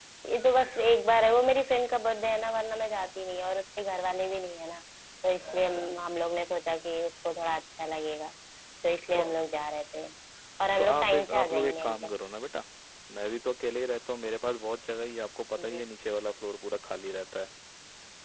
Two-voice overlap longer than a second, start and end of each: 10.8-12.1

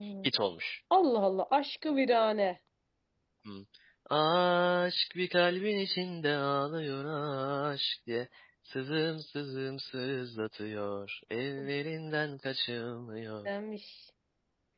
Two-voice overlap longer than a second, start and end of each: none

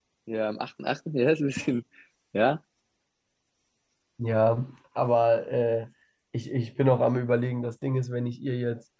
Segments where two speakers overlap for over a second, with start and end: none

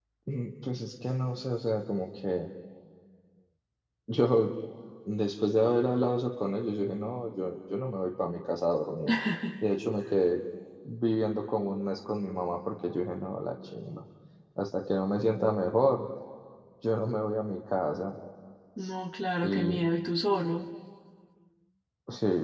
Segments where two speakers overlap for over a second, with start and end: none

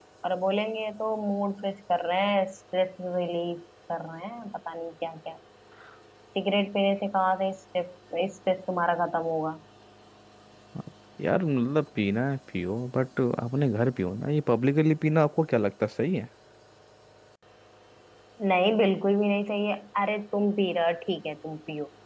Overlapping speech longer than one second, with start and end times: none

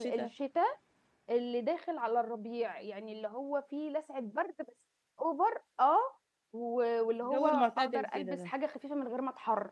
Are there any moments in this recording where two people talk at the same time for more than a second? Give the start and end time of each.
7.2-8.5

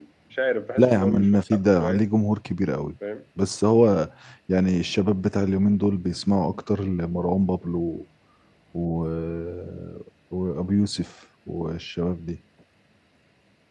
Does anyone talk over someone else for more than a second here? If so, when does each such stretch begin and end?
0.8-2.0

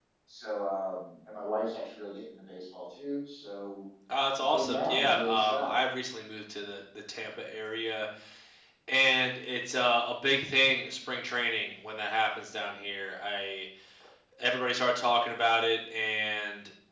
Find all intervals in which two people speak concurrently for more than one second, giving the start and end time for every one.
4.5-5.8

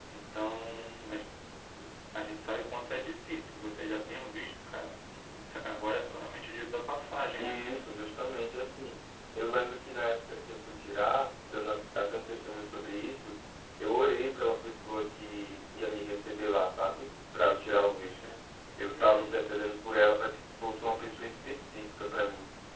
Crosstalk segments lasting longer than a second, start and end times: none

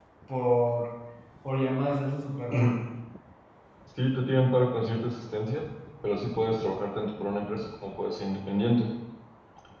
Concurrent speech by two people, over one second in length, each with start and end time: none

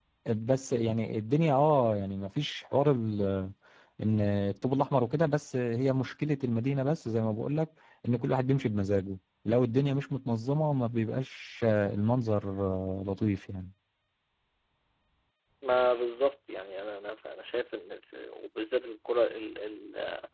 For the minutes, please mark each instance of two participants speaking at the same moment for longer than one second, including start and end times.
none

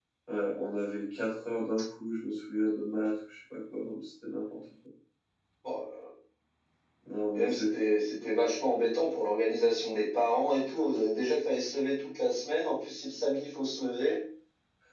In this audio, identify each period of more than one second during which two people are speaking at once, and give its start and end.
none

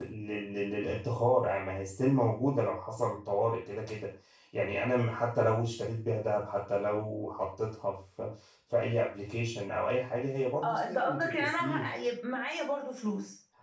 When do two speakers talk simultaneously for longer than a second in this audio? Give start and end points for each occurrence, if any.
10.6-11.9

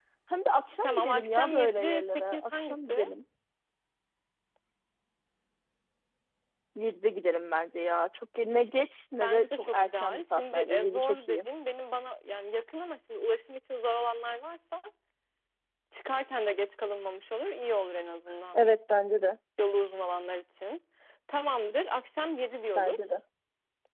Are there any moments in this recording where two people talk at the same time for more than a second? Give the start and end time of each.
0.8-3.1, 9.2-11.4

